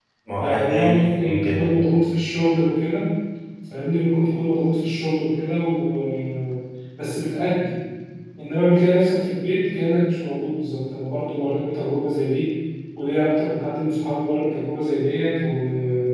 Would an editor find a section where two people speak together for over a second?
Yes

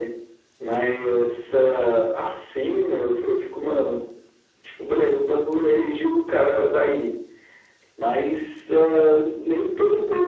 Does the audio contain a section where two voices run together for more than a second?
No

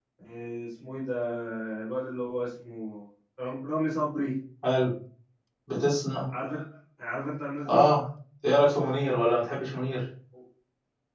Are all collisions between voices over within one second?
Yes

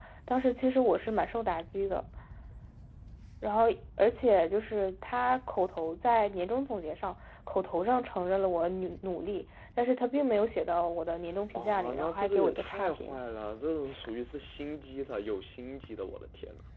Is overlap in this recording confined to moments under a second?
No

